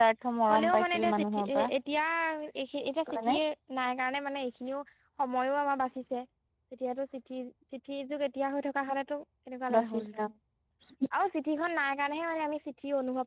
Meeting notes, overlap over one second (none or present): present